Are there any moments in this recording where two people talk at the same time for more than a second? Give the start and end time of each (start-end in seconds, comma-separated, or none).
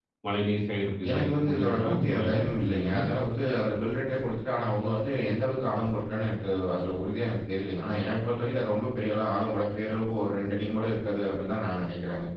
1.1-3.0